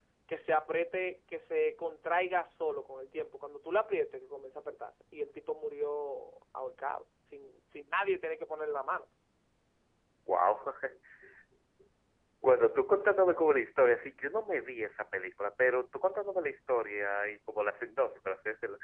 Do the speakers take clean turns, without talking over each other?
Yes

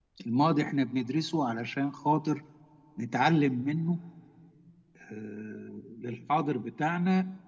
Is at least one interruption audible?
No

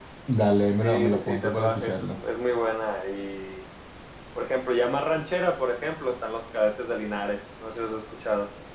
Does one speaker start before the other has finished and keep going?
Yes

